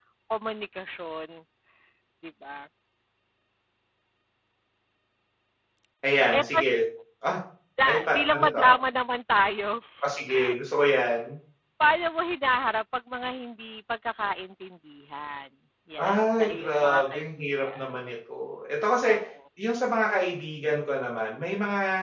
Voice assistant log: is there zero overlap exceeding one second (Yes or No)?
No